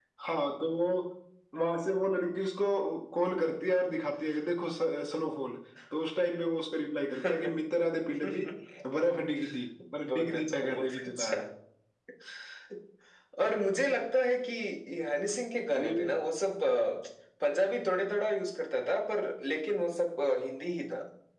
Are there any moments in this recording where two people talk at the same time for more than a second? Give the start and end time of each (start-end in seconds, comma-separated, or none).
10.0-11.4